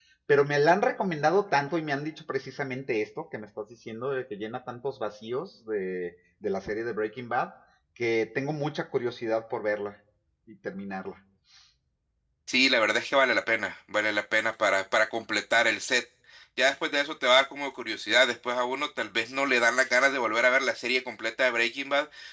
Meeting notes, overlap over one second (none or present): none